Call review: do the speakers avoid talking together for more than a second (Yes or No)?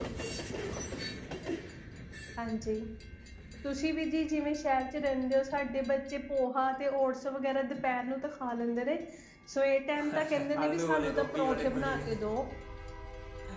No